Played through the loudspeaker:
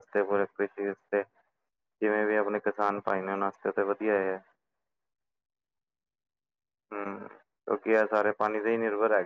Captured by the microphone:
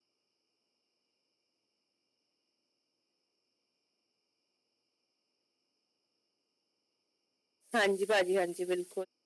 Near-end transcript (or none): ਹਾਂਜੀ ਭਾਜੀ ਹਾਂਜੀ ਬਿਲਕੁਲ